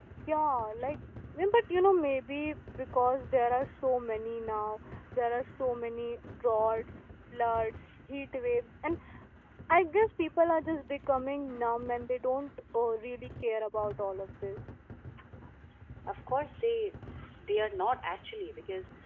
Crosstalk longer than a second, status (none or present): none